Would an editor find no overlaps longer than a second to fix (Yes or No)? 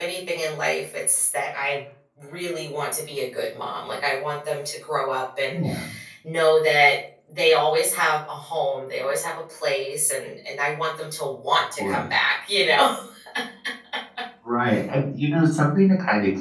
Yes